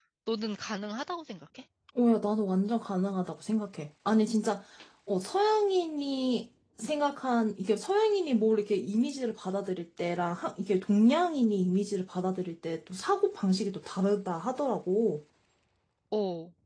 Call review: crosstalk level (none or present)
none